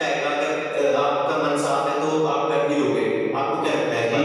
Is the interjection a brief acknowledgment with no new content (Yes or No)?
No